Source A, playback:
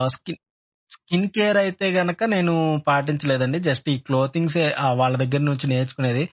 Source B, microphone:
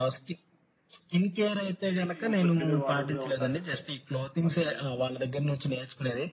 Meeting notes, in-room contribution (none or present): present